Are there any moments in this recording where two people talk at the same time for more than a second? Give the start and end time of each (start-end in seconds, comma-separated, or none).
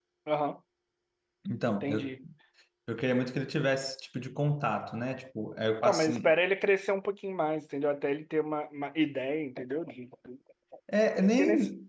none